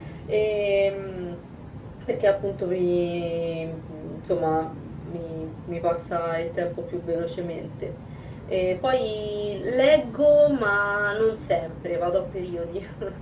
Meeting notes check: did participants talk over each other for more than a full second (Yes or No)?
No